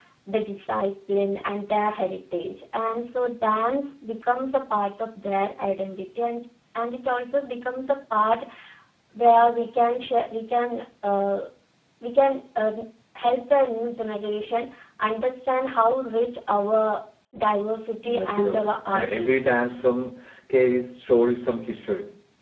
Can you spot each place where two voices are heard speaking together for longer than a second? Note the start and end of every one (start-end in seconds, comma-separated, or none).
18.0-19.5